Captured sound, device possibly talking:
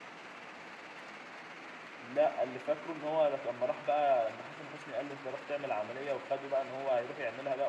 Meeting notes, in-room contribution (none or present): present